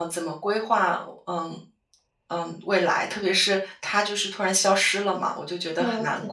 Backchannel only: No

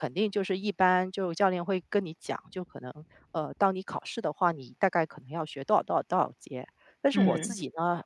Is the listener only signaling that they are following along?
Yes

